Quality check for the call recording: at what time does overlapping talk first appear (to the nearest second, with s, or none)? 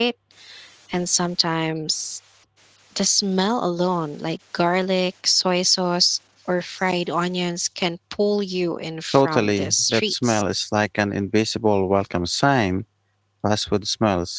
9 s